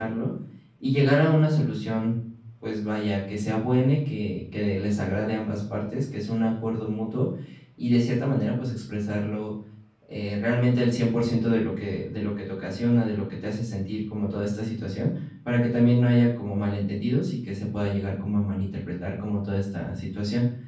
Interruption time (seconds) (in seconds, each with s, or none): none